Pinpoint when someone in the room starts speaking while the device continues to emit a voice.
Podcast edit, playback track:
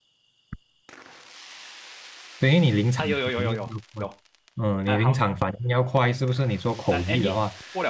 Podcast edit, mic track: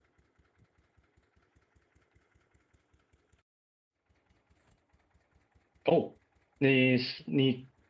5.8 s

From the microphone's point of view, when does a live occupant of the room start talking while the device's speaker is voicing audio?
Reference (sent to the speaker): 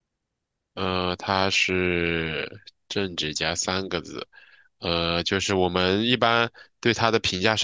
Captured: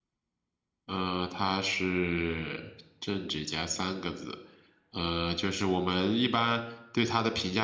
none

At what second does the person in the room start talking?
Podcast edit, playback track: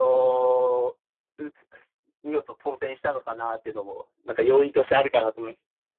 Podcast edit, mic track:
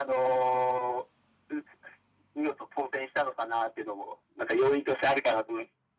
none

